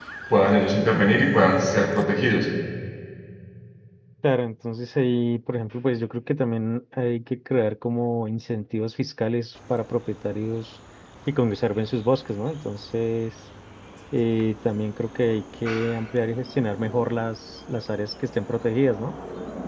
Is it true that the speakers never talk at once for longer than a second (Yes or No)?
Yes